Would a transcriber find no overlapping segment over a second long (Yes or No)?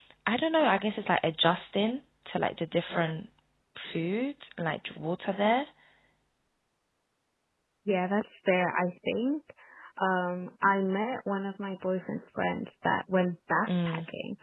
Yes